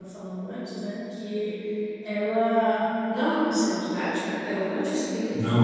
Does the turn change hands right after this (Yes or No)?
No